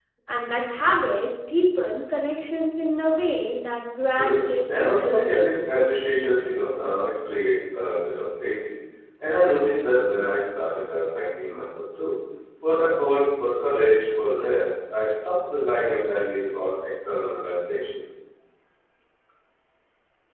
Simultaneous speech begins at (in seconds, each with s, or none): 4.1 s